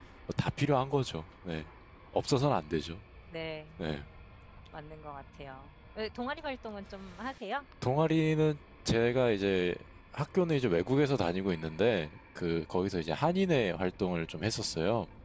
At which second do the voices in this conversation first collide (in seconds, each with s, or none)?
none